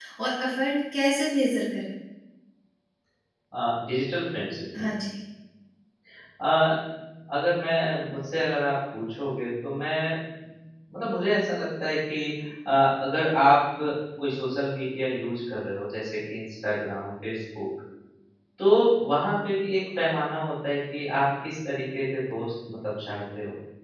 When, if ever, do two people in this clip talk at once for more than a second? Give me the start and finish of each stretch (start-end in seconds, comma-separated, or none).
none